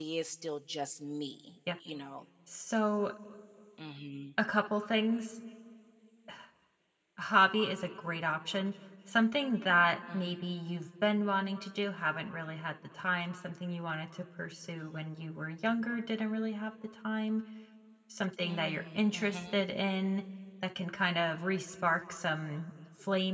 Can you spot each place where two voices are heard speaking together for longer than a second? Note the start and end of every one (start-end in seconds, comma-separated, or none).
18.4-19.6